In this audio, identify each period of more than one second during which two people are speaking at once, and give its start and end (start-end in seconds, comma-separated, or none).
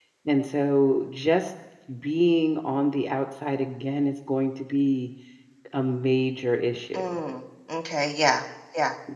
none